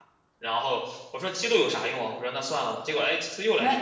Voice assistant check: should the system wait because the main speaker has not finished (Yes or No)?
No